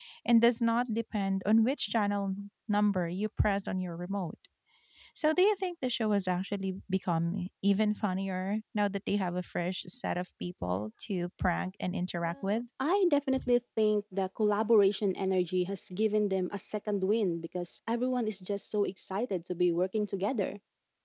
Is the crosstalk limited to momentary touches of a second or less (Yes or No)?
Yes